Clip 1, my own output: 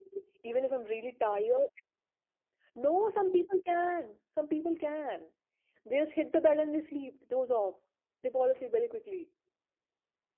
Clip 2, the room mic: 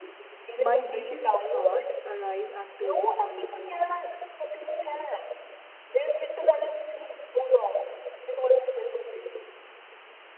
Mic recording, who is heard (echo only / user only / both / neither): both